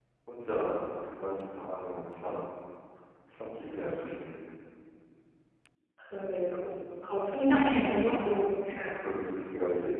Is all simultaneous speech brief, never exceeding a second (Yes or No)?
Yes